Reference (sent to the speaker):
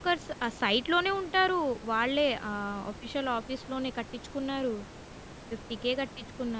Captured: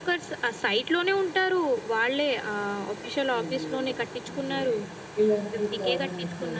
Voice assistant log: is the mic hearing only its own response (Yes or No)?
No